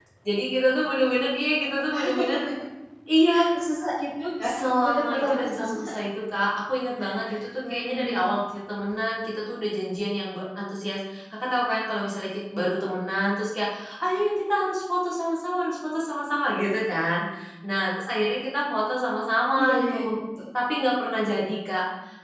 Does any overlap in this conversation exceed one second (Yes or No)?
Yes